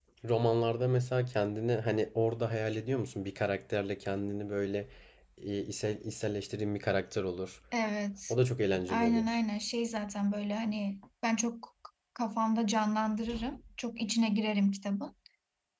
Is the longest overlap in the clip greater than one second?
No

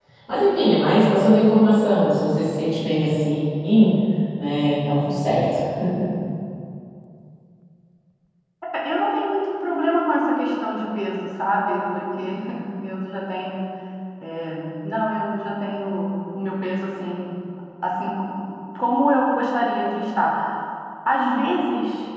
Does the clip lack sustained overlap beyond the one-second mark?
Yes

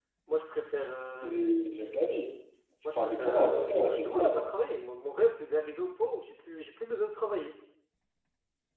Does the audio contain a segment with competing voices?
Yes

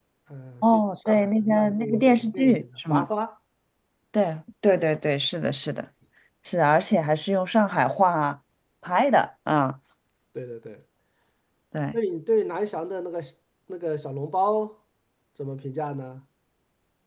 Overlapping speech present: Yes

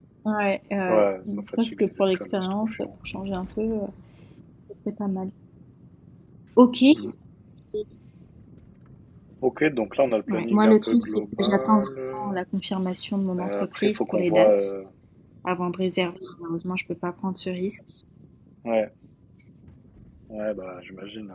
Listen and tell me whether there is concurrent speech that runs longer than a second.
Yes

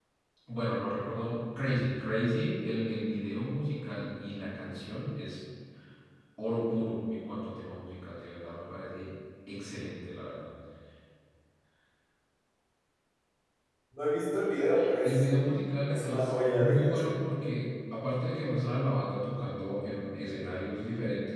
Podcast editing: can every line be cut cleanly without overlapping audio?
No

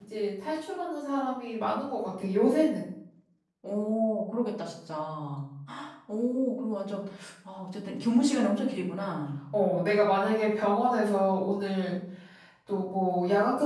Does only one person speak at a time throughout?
Yes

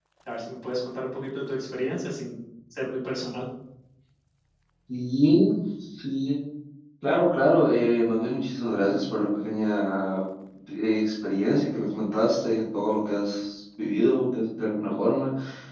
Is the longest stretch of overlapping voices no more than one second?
Yes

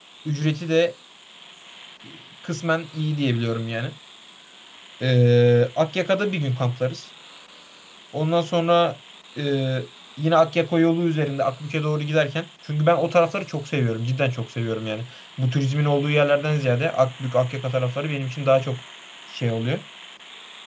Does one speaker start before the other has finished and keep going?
No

